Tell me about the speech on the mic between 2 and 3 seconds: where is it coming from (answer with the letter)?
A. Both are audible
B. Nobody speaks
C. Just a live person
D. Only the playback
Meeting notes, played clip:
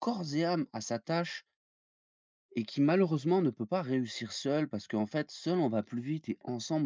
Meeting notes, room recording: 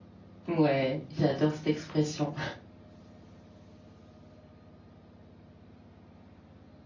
C